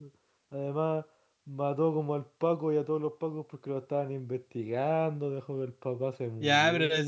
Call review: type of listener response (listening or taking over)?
taking over